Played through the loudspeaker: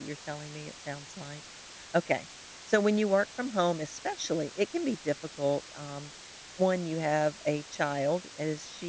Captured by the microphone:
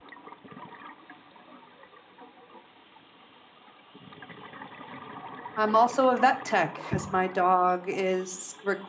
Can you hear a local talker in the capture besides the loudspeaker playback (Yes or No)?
Yes